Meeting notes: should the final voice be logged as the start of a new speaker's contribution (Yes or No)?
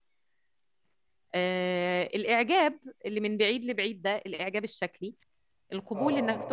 No